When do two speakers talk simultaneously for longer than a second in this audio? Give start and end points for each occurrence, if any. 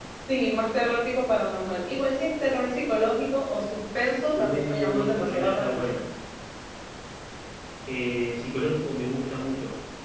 4.3-5.9

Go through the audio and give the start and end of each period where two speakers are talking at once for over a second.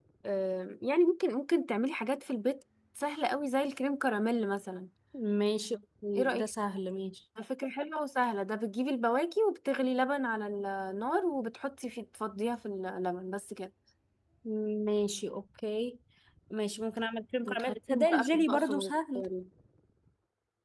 17.5-18.9

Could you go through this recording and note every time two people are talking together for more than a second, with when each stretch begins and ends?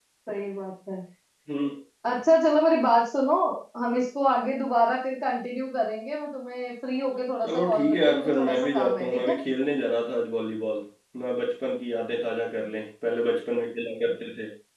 7.4-9.4

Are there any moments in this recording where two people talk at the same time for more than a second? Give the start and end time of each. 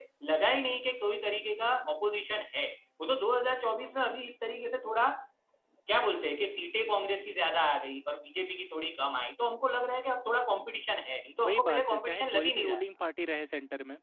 11.4-12.8

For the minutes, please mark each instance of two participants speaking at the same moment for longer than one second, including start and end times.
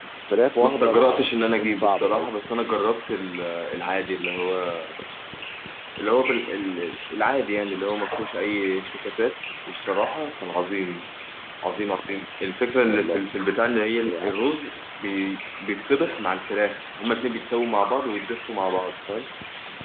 0.6-2.3

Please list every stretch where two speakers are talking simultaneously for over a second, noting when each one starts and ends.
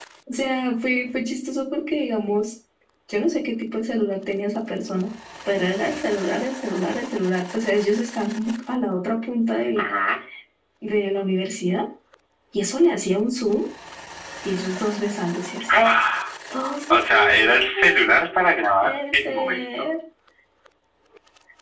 16.9-19.6

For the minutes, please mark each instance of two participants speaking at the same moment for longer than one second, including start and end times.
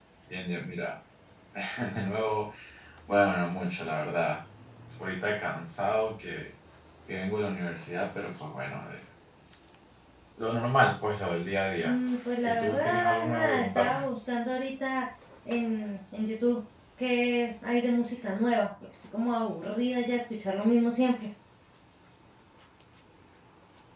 12.4-14.0

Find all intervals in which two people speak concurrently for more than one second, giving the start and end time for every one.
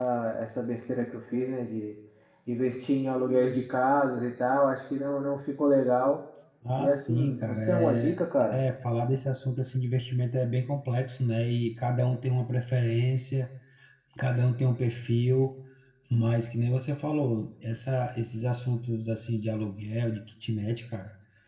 6.8-8.6

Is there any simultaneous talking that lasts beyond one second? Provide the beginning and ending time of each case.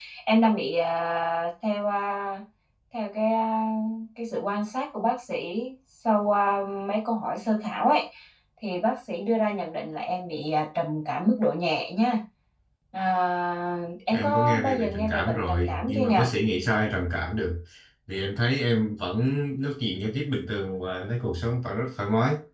14.1-16.3

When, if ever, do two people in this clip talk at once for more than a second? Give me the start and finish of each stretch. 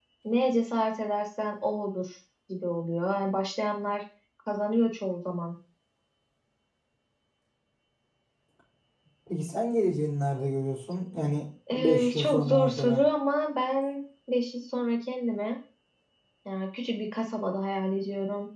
11.7-13.0

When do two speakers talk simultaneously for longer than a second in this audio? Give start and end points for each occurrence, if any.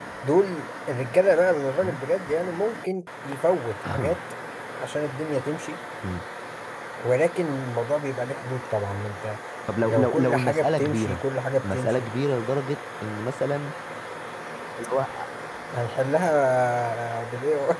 9.8-11.2

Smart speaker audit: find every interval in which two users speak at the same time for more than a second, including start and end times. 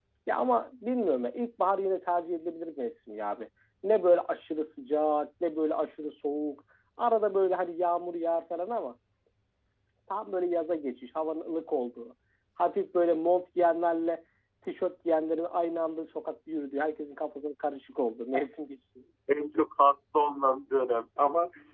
none

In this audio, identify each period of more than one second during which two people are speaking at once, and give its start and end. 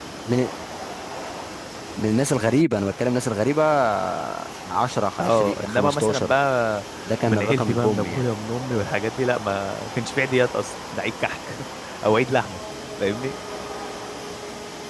5.2-6.4, 7.1-8.3

